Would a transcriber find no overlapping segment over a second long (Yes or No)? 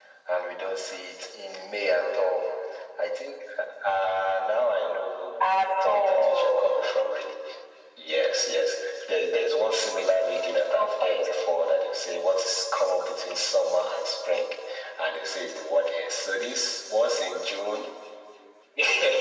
No